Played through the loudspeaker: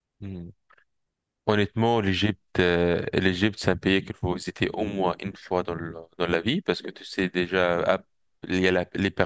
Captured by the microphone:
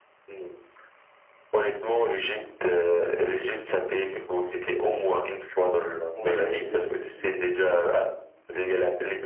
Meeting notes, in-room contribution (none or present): present